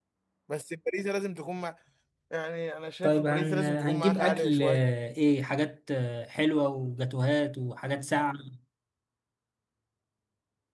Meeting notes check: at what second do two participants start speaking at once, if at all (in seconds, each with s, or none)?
3.0 s